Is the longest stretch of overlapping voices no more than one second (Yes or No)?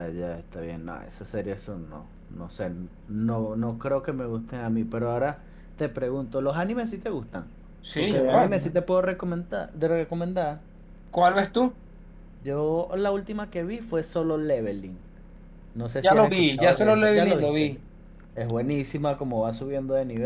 No